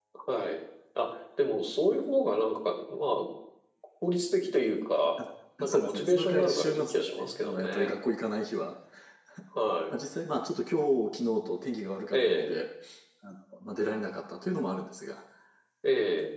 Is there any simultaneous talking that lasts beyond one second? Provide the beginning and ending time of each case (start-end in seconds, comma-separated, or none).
5.6-7.9